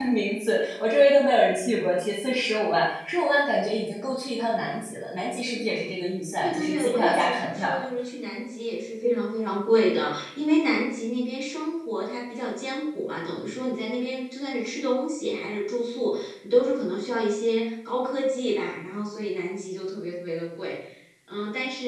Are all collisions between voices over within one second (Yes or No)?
No